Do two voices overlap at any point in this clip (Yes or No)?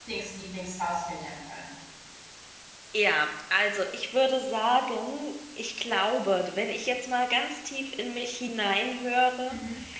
No